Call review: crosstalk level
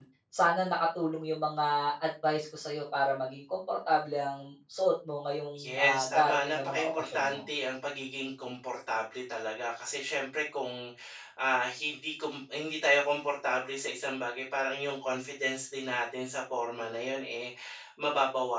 present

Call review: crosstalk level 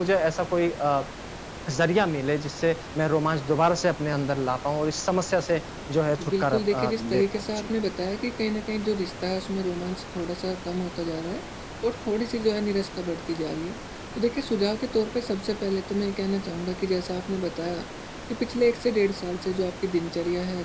present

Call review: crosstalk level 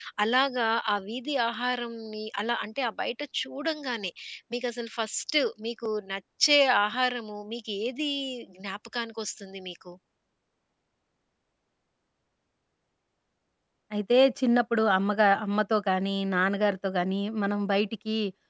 none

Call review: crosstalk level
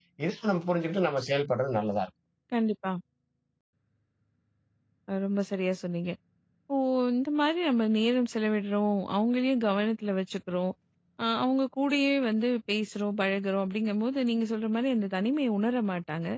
none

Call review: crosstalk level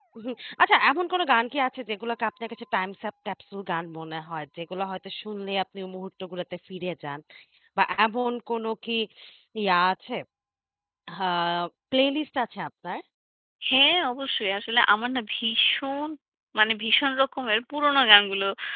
none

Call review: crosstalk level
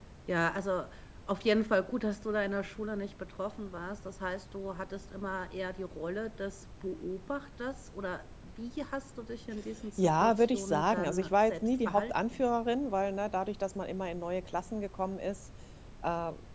present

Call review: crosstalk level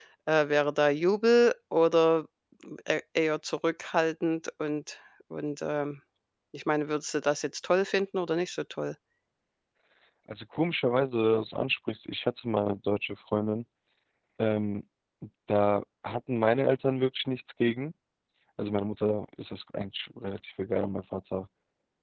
none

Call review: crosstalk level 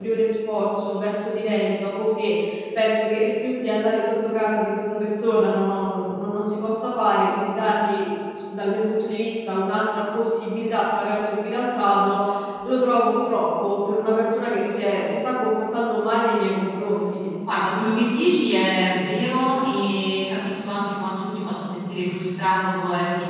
none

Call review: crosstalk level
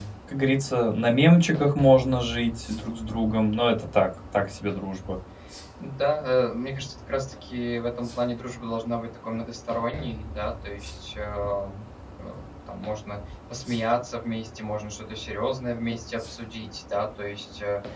none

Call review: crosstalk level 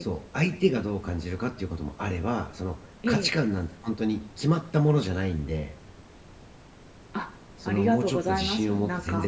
present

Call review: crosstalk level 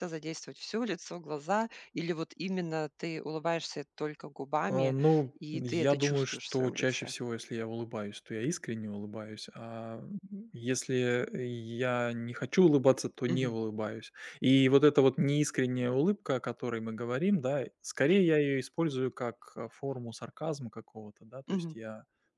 present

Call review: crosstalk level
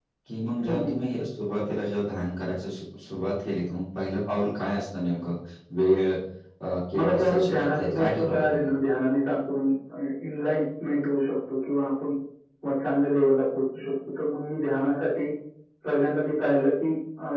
present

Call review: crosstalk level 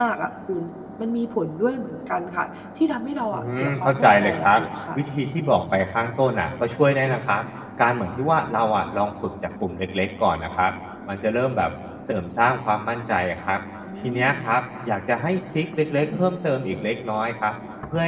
present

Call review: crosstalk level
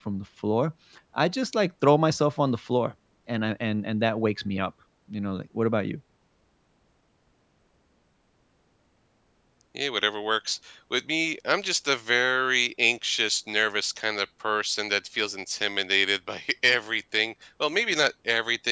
none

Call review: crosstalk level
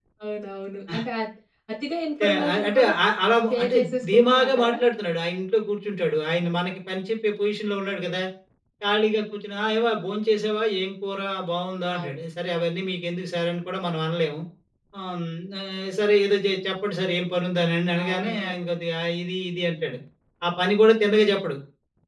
present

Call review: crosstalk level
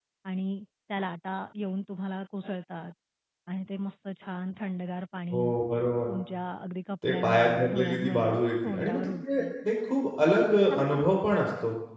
present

